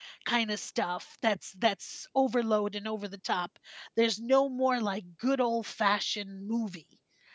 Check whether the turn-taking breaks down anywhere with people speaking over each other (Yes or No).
No